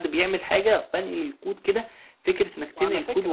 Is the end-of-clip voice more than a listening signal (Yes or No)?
No